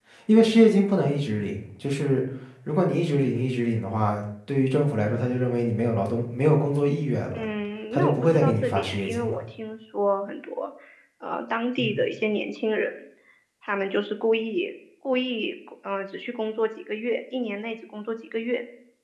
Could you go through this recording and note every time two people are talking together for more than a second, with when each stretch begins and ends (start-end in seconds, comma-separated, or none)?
7.9-9.4